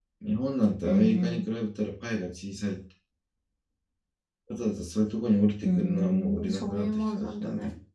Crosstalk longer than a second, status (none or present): present